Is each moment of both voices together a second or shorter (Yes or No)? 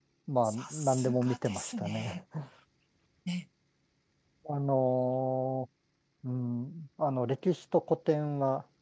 No